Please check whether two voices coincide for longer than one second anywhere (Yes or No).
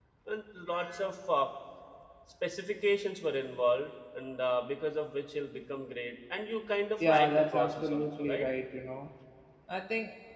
Yes